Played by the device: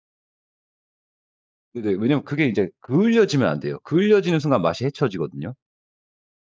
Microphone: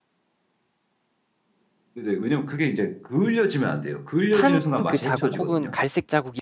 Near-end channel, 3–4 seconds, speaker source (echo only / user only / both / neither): echo only